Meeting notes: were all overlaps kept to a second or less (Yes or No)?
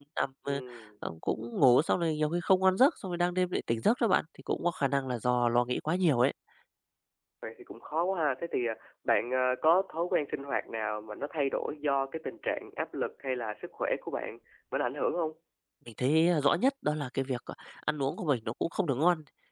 Yes